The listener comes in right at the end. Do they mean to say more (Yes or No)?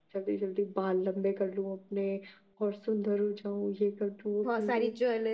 Yes